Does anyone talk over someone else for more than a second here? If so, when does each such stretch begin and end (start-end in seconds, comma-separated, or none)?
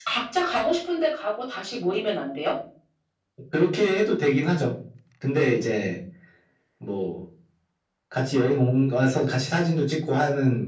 none